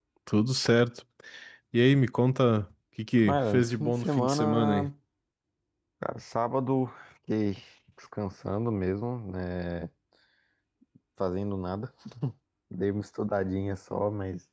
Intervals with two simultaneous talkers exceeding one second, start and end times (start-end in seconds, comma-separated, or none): 3.2-4.9